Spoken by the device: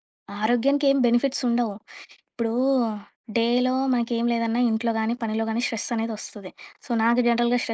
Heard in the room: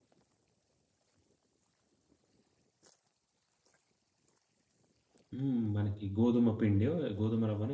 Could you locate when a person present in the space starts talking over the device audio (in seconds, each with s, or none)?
5.3 s